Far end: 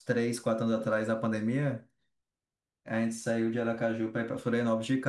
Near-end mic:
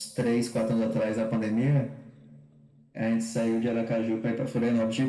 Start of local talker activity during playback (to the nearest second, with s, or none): none